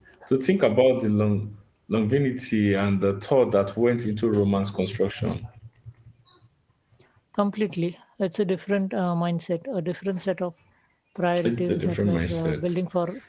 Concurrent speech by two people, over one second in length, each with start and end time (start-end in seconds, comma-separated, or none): 11.5-12.8